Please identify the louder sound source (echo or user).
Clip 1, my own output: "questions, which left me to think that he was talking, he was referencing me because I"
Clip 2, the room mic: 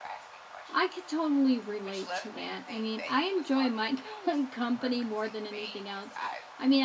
user